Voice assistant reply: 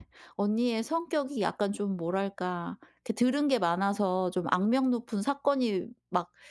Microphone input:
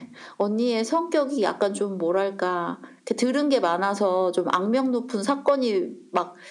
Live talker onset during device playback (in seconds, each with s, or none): none